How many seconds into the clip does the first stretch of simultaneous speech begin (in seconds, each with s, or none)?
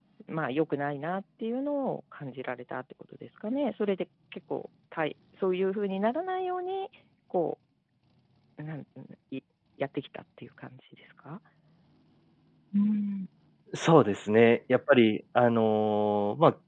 none